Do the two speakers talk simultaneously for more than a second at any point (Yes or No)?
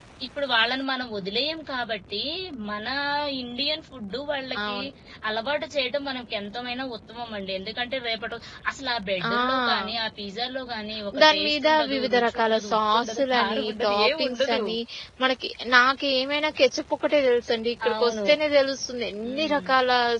Yes